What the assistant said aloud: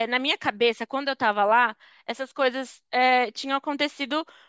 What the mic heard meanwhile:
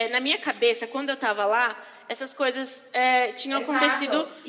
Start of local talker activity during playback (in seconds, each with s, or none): 3.5 s